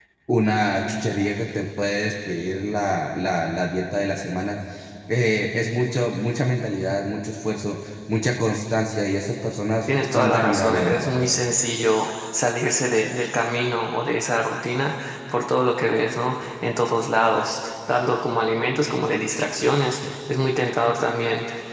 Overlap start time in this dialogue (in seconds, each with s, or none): 9.9 s